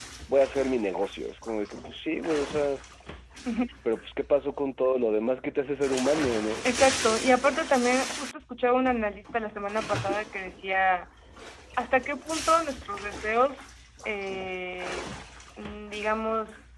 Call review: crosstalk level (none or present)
none